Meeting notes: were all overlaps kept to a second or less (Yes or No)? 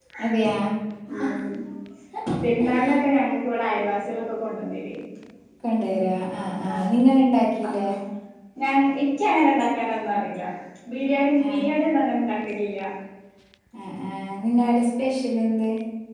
Yes